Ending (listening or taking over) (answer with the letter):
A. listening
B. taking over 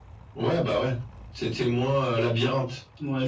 B